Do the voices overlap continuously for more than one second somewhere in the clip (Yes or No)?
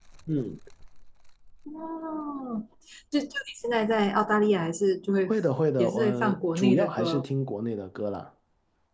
Yes